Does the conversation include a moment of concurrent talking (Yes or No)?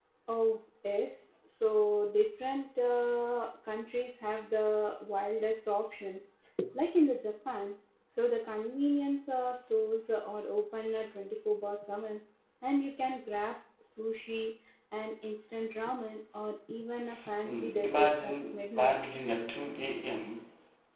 Yes